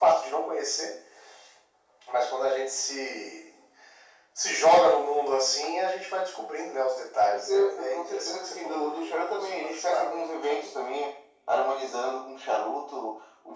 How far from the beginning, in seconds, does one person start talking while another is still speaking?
7.3 s

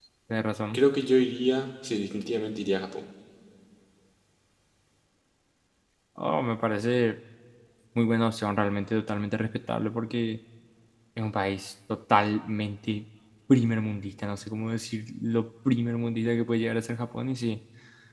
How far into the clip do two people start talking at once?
none

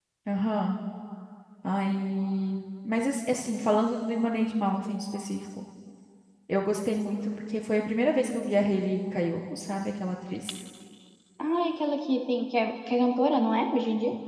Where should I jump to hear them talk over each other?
none

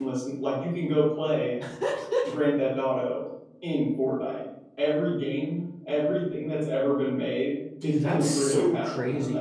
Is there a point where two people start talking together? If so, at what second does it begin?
7.8 s

